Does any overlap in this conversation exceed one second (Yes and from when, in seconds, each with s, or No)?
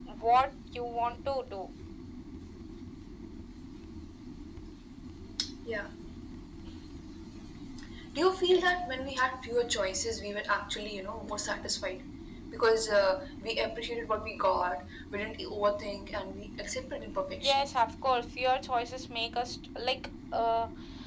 No